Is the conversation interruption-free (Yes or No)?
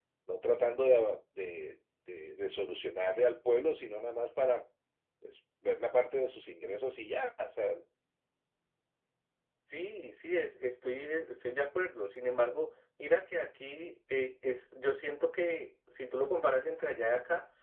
Yes